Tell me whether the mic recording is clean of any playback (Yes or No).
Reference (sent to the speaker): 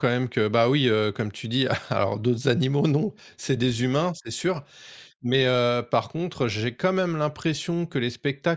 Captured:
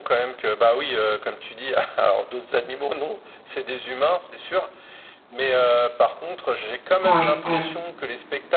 No